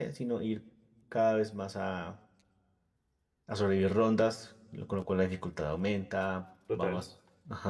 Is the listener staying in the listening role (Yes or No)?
Yes